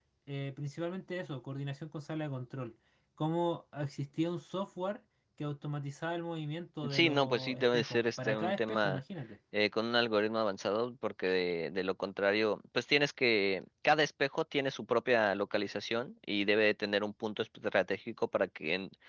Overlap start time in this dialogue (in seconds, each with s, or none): 6.8 s